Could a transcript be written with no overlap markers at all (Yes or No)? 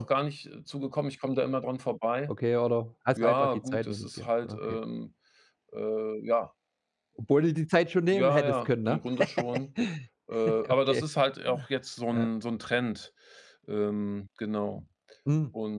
No